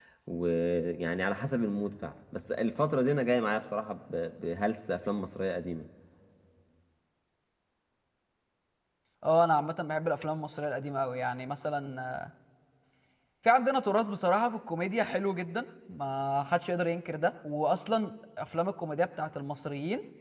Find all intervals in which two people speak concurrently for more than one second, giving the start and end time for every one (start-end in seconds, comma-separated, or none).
none